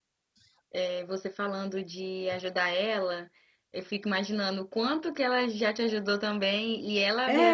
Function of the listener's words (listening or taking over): listening